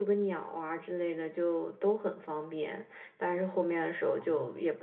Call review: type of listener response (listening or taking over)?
listening